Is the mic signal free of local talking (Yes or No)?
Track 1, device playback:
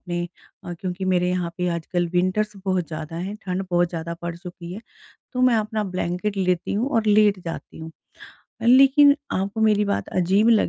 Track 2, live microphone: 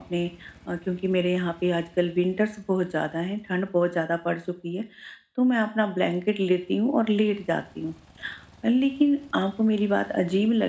Yes